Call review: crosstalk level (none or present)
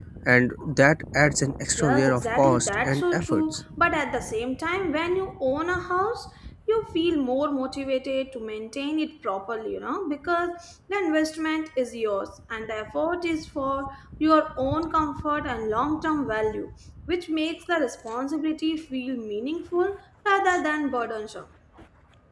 present